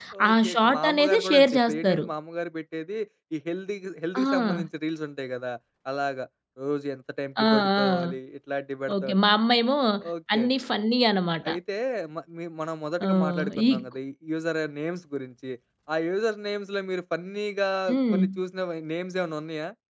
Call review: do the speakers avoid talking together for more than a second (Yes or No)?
No